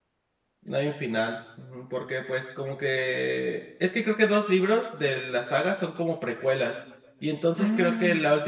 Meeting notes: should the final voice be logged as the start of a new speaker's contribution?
No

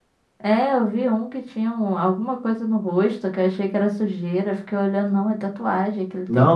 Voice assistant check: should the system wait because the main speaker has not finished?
No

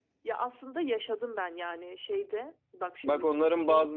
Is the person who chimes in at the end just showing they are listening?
No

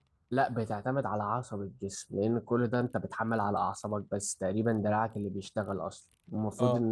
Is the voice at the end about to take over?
No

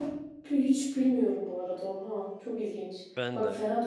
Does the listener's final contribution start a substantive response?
No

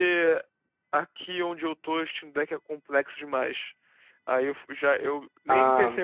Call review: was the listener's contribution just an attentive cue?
Yes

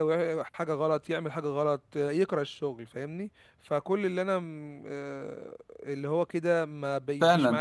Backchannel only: No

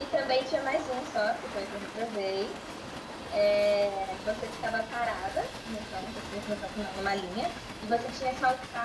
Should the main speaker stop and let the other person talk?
No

